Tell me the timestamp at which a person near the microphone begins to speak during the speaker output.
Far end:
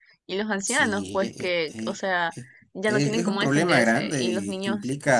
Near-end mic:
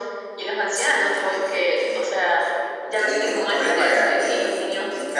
none

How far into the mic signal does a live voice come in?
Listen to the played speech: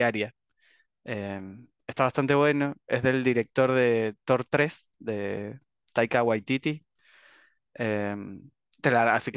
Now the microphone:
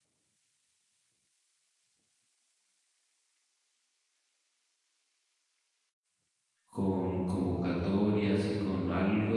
6.7 s

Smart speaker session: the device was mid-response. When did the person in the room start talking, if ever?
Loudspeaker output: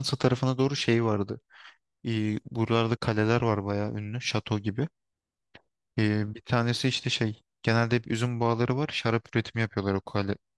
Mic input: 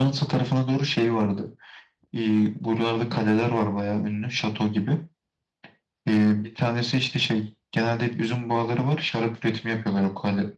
none

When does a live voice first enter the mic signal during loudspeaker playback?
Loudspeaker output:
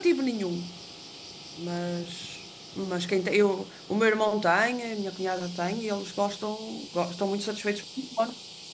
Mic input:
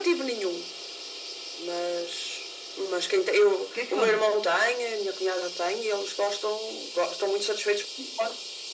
3.7 s

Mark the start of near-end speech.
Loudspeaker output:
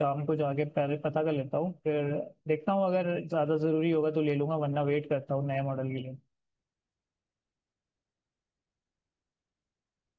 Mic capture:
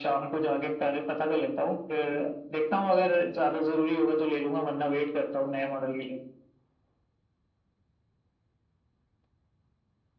none

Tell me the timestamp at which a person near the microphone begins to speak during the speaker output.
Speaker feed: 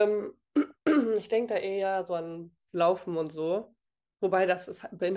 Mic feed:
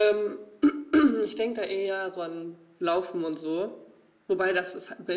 none

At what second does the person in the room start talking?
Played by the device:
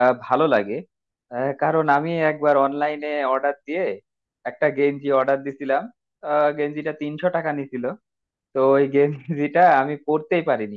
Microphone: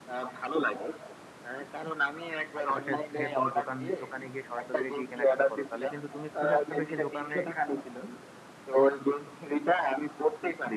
2.6 s

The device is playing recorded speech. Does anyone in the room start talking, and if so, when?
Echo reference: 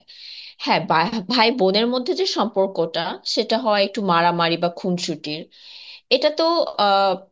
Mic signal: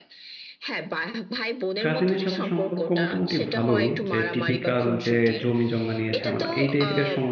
1.8 s

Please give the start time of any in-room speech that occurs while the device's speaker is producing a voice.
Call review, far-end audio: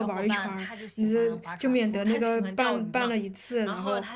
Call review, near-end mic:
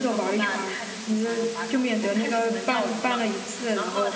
none

